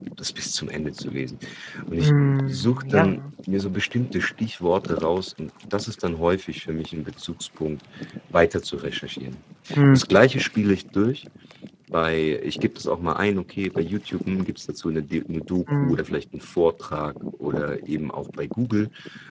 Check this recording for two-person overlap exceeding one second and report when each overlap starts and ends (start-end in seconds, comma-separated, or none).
2.0-3.2